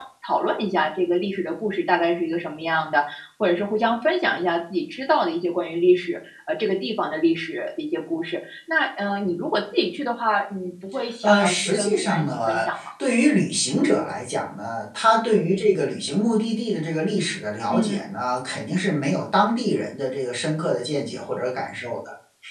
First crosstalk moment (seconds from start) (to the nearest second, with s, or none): 11 s